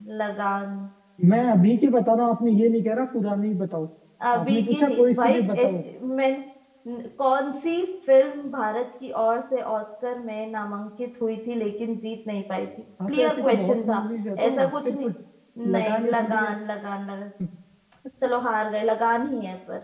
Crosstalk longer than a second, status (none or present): present